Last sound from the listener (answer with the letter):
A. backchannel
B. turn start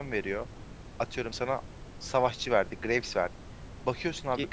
A